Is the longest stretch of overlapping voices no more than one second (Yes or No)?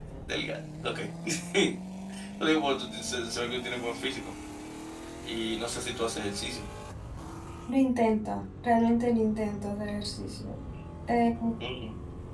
Yes